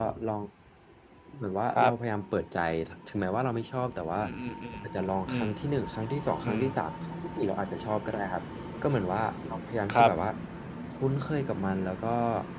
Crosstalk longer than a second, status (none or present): none